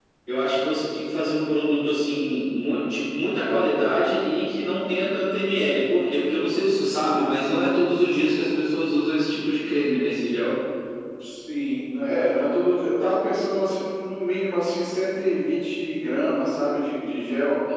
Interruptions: none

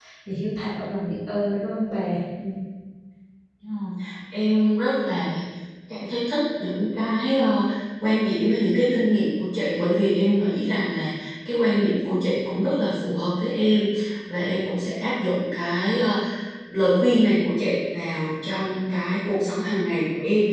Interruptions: none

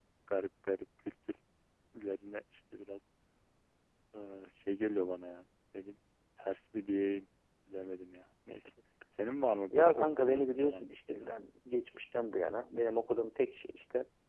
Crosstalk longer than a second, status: present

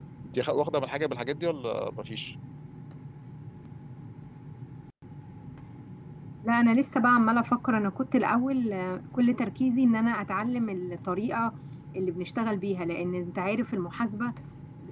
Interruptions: none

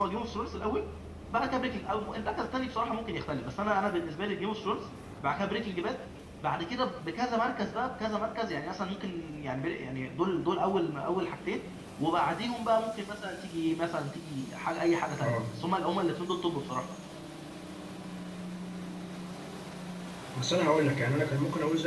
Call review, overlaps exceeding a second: none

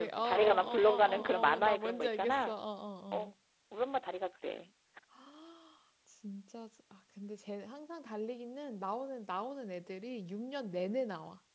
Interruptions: present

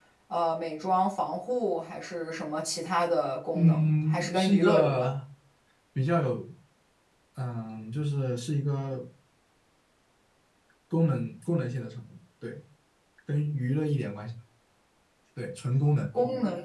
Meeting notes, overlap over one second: present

